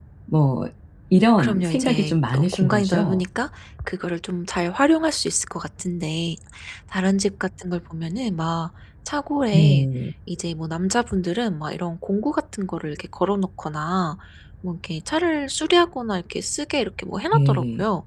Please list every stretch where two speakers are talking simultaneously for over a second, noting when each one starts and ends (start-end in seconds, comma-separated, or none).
1.4-3.2